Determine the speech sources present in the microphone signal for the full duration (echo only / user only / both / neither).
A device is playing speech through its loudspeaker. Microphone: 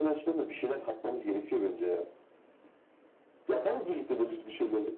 echo only